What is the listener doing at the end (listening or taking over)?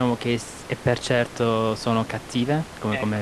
taking over